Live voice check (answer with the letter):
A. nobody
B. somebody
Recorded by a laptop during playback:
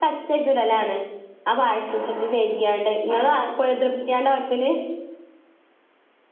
B